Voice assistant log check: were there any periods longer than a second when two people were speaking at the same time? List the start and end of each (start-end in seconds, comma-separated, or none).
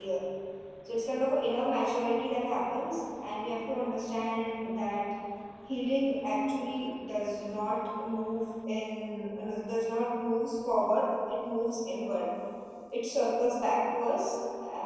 none